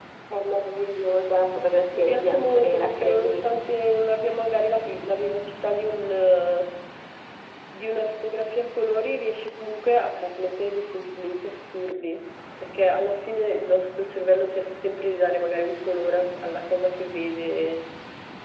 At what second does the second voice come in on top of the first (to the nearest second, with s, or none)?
2 s